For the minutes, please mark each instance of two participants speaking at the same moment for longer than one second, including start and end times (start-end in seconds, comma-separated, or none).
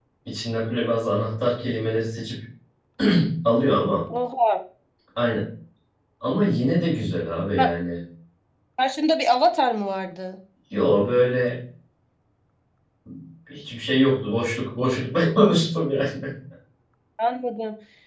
none